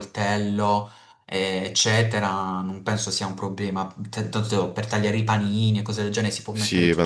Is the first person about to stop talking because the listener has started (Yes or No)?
Yes